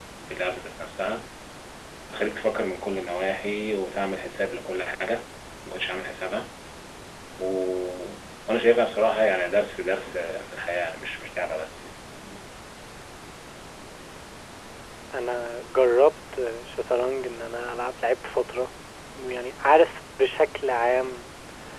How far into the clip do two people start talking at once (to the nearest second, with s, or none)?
none